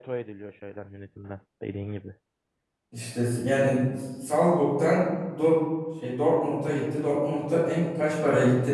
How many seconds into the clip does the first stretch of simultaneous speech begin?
none

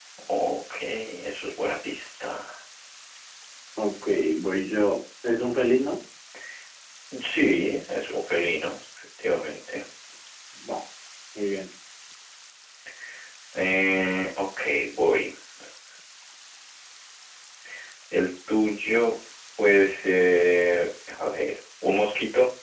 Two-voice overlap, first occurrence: none

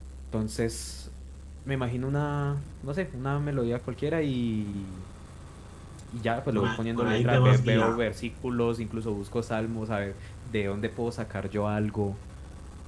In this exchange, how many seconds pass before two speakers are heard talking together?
6 s

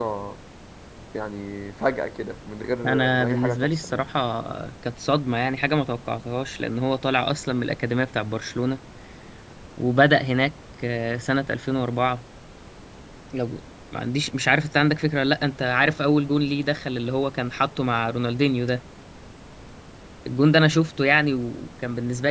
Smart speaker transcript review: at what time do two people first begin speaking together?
3 s

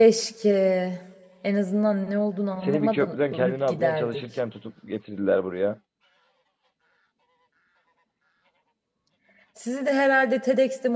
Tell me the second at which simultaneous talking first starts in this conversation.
3 s

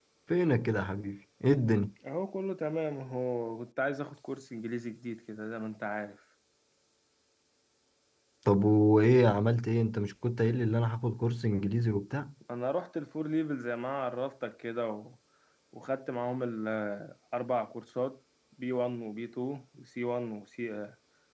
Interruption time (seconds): none

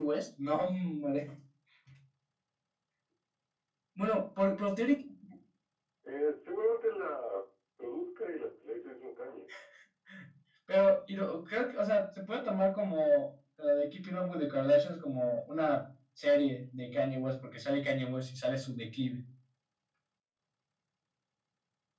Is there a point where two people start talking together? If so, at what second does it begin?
none

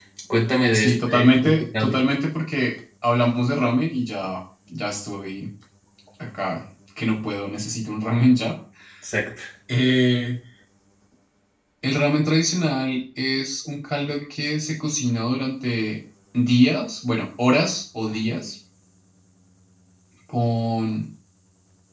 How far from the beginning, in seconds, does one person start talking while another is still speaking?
1 s

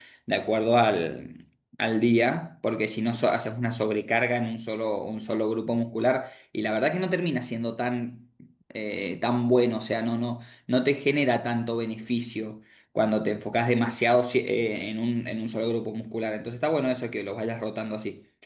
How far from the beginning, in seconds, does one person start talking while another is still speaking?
none

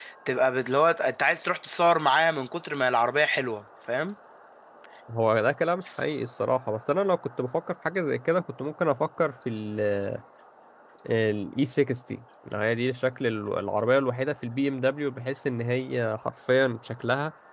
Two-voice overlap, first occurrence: none

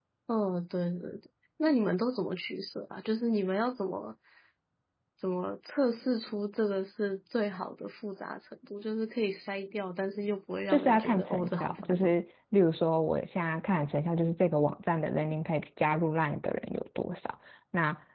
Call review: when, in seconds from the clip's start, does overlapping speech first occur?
11 s

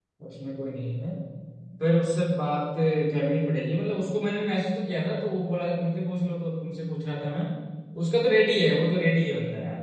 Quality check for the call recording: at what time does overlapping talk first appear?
none

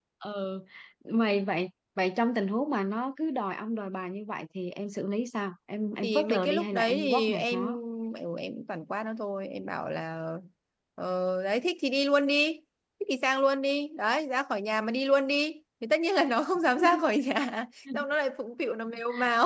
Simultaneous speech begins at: 6 s

